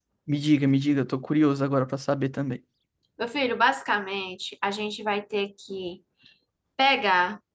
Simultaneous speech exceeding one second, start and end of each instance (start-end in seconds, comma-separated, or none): none